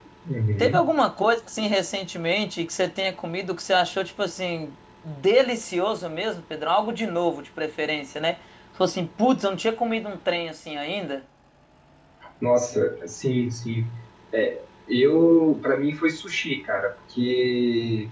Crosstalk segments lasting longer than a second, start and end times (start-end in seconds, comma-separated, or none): none